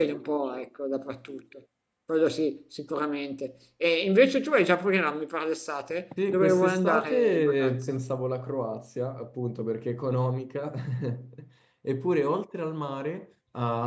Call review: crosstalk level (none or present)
present